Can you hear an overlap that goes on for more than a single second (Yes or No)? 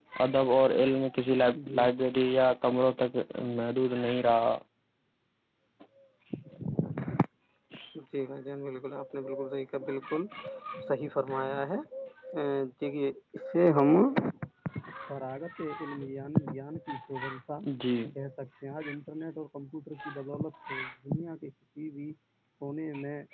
No